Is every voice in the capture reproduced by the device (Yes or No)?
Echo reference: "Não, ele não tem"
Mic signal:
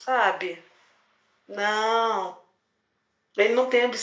Yes